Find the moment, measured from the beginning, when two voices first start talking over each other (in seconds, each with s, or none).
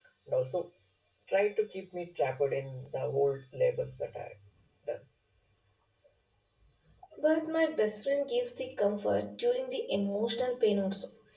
none